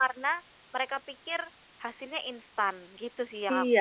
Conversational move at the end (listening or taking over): taking over